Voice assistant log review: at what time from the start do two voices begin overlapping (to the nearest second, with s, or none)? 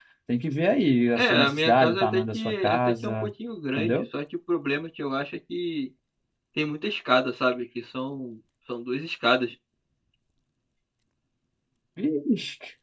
1 s